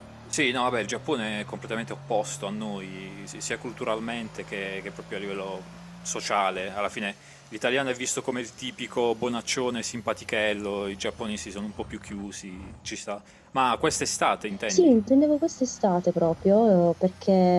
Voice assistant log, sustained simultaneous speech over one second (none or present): none